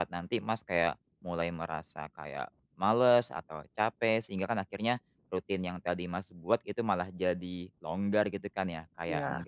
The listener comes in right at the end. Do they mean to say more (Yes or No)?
No